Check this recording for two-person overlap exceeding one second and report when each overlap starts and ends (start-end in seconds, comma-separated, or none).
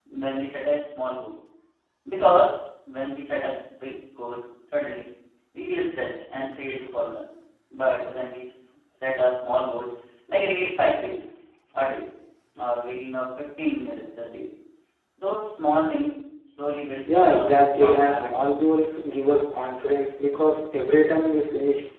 17.1-18.3